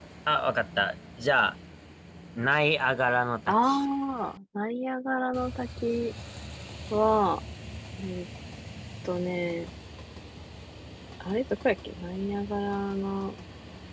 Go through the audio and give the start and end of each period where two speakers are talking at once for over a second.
none

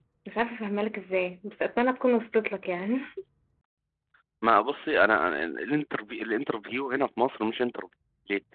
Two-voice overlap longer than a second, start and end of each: none

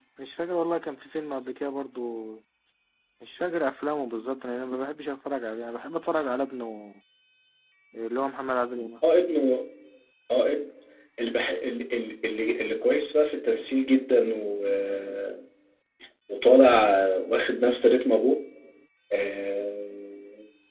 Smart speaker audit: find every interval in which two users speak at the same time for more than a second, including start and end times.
none

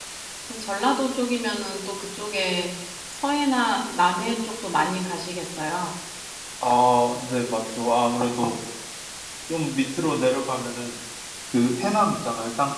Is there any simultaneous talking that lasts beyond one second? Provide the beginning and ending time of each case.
none

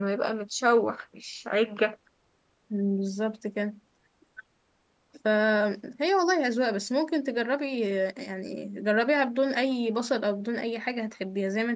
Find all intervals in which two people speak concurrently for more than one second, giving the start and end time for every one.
none

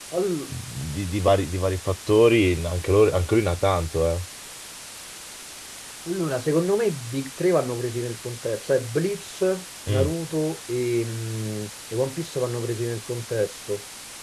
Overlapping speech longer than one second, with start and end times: none

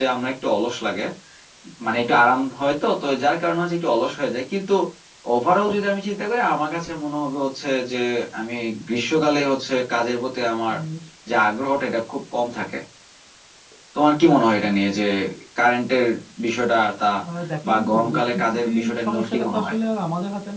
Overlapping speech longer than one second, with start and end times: 17.7-19.7

